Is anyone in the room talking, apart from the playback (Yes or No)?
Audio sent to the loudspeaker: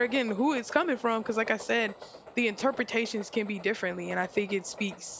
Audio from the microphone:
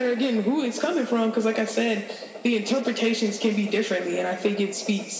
No